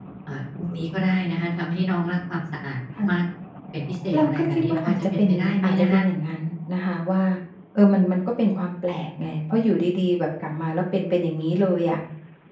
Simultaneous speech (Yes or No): Yes